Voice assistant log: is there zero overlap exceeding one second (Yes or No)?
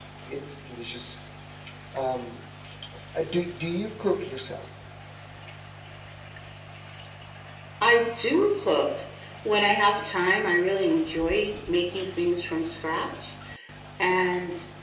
Yes